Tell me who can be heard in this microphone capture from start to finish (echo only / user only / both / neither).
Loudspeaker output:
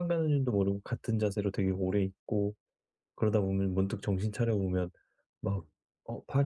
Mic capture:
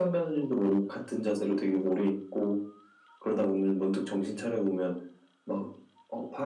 echo only